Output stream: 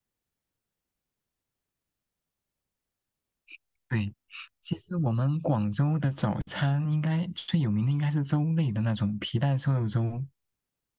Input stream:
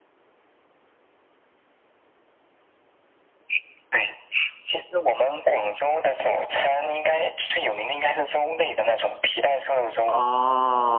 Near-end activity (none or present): present